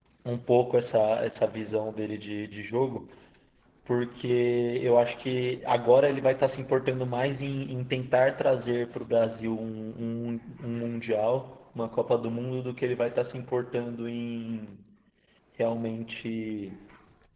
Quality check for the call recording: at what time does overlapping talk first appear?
none

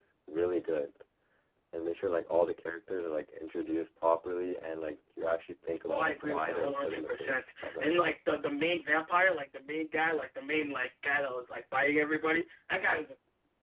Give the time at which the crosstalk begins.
5.9 s

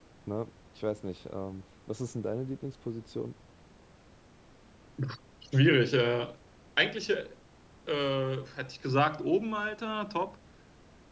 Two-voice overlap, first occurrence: none

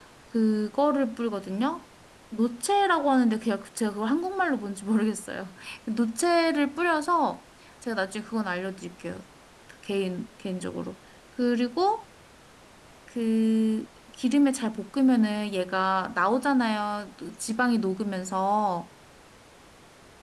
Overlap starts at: none

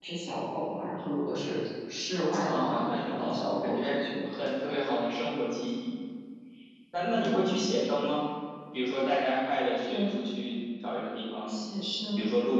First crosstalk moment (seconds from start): 2.3 s

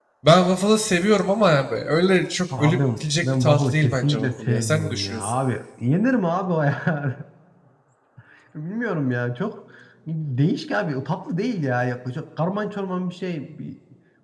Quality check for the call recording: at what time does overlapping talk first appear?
2.5 s

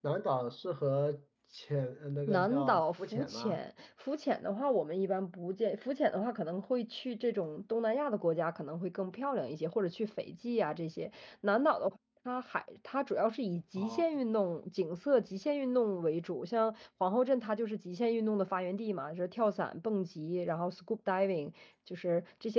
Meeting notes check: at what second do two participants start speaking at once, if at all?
2.3 s

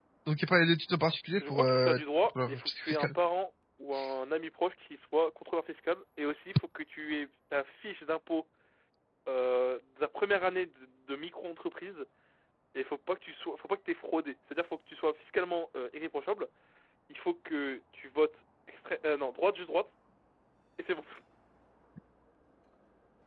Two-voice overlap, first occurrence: 1.4 s

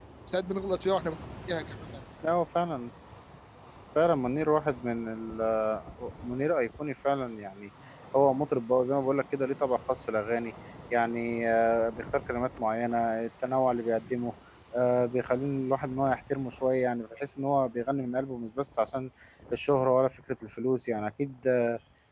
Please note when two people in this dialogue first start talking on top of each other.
none

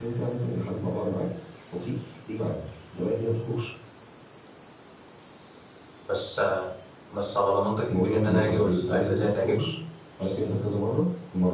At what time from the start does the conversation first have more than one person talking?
7.9 s

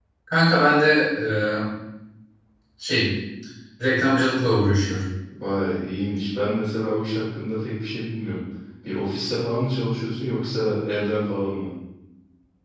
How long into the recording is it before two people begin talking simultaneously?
none

